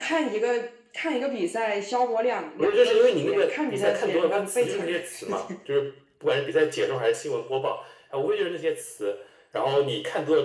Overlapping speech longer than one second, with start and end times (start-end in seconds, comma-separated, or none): 2.6-5.5